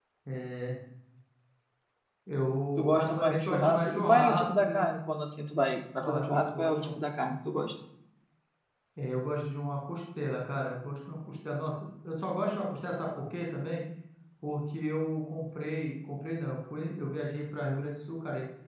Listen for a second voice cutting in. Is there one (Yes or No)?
Yes